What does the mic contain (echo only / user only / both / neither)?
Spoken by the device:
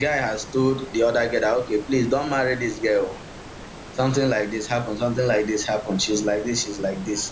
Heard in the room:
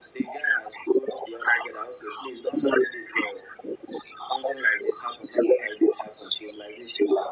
echo only